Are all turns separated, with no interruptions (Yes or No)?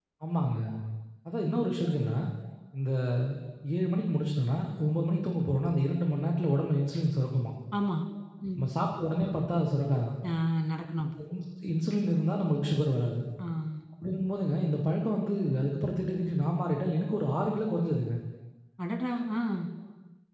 Yes